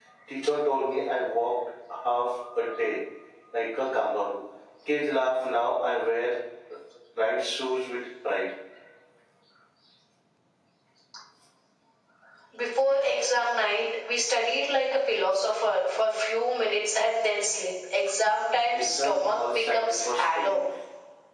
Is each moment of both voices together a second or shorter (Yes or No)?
No